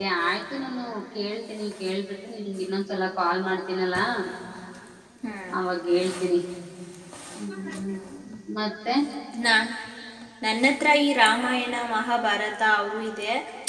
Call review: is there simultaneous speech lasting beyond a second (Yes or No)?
No